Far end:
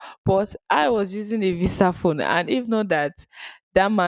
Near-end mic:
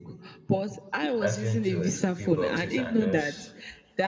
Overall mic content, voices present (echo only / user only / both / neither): both